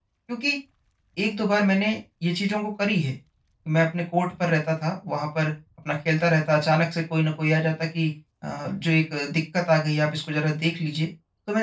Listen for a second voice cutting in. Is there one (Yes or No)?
No